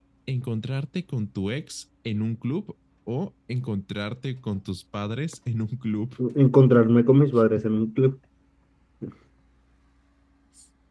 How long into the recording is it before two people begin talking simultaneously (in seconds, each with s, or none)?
none